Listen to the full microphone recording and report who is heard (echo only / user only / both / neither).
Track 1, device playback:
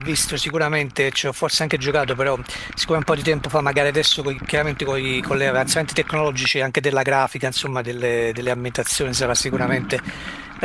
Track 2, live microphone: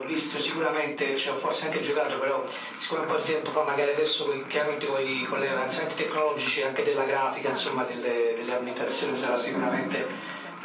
both